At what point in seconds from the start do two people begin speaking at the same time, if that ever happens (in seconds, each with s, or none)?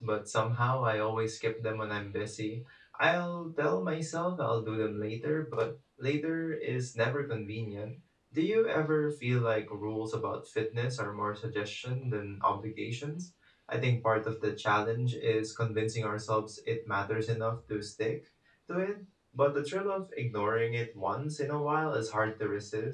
none